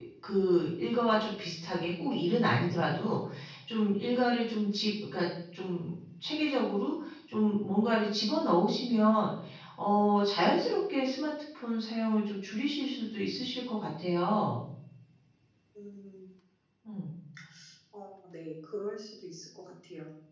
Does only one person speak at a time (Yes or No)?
Yes